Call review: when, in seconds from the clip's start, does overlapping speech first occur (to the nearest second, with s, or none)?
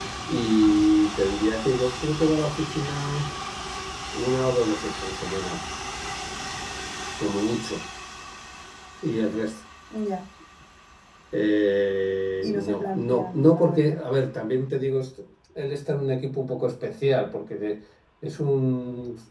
12 s